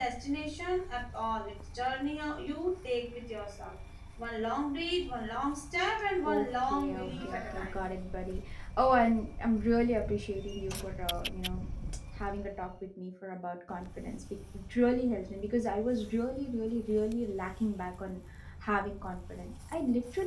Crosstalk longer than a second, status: present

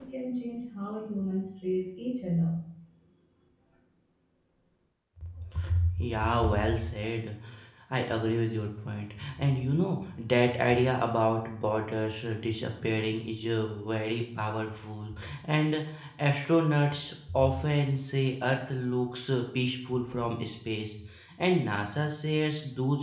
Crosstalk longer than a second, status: none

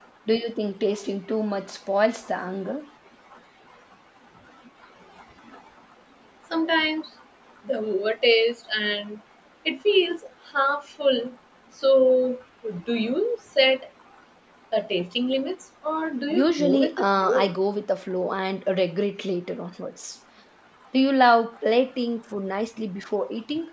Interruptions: present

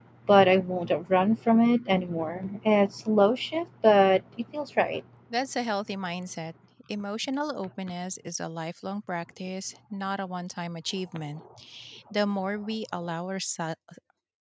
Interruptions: none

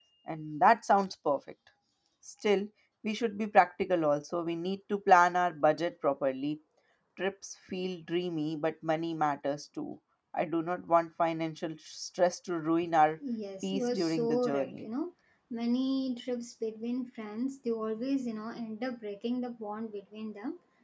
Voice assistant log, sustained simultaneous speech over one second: present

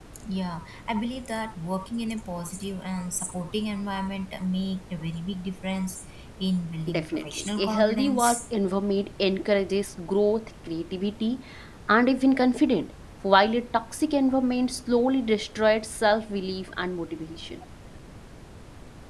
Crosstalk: present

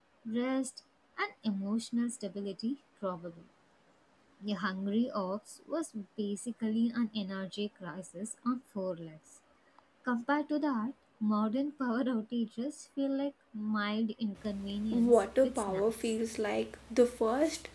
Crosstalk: present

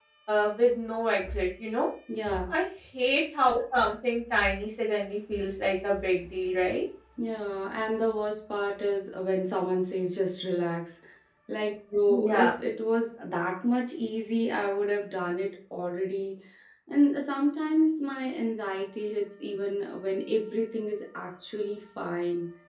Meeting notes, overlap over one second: none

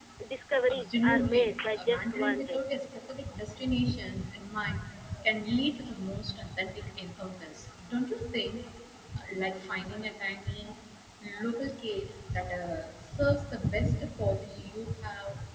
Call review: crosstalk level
present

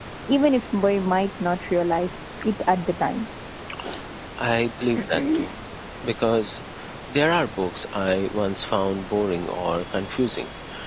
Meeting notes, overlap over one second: none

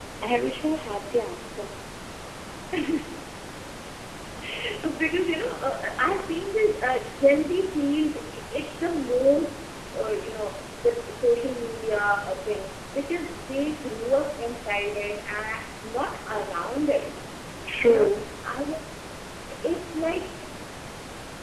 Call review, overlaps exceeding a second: none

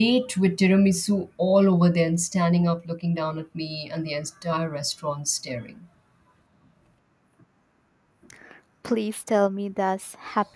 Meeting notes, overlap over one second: none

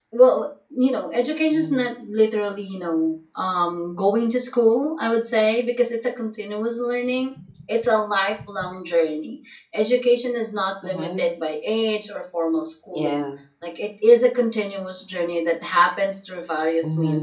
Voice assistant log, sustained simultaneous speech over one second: none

